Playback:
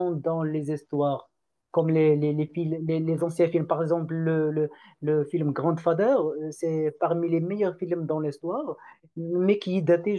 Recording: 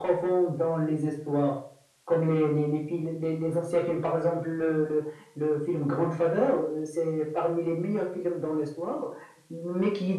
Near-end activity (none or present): none